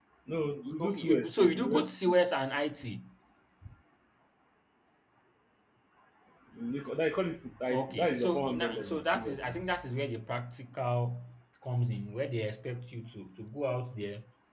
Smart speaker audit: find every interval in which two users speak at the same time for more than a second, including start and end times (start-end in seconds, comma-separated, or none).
0.8-2.1, 7.7-9.6